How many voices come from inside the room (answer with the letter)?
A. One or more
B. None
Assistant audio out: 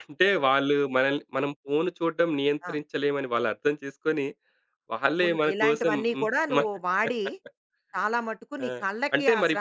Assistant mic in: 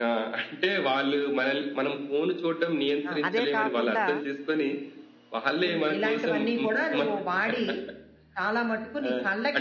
A